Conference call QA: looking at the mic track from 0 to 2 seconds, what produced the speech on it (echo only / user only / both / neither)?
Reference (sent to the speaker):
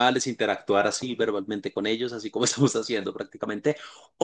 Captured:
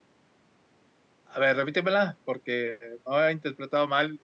user only